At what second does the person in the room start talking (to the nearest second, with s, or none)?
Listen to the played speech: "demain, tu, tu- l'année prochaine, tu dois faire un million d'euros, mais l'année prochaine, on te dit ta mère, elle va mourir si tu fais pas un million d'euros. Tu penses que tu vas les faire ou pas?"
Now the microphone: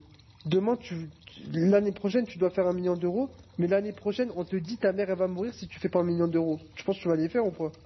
none